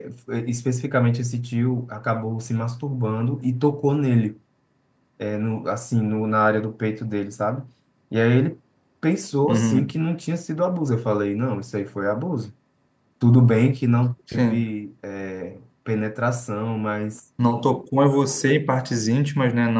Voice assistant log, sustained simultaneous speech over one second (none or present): none